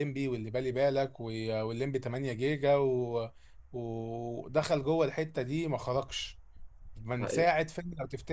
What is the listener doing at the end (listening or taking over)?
listening